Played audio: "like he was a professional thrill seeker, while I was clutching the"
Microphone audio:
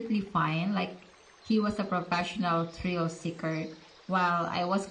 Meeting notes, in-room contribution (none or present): none